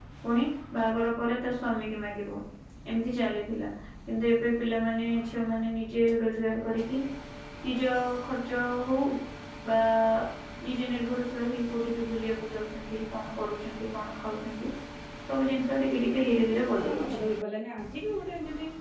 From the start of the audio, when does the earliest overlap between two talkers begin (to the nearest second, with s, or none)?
16 s